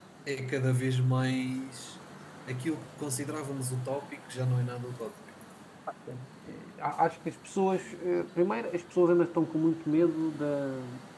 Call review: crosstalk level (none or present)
none